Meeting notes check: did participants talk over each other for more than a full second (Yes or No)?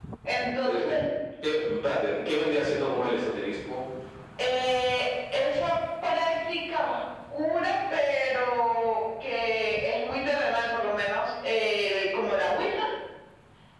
No